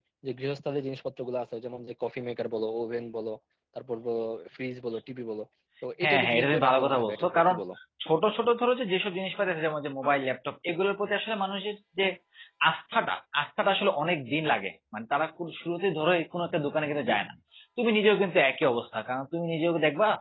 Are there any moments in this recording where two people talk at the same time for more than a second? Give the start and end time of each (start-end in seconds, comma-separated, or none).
6.0-7.6